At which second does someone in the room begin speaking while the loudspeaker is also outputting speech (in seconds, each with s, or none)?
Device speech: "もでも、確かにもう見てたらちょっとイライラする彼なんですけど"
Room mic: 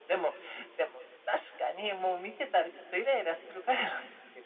none